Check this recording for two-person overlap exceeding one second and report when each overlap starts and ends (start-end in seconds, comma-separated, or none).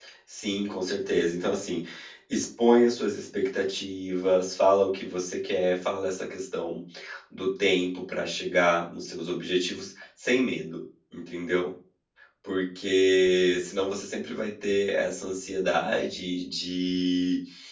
none